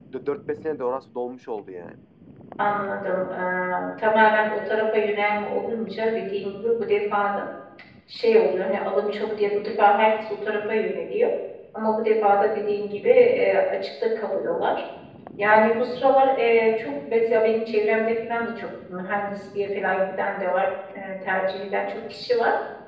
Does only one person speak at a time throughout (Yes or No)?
Yes